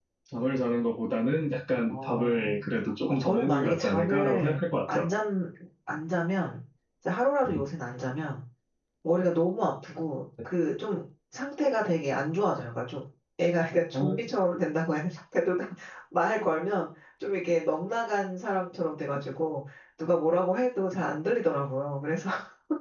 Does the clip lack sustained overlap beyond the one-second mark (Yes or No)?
No